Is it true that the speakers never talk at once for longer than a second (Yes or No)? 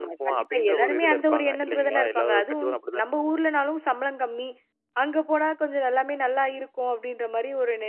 No